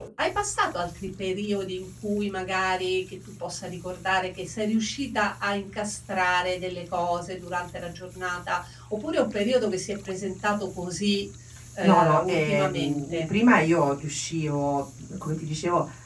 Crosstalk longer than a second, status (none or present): present